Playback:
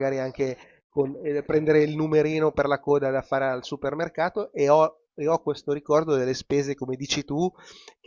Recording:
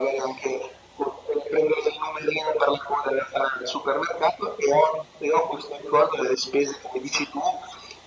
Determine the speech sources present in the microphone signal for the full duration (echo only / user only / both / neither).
echo only